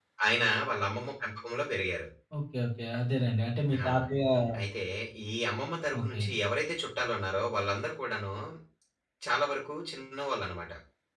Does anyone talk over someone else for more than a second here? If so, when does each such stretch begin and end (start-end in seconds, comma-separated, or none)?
none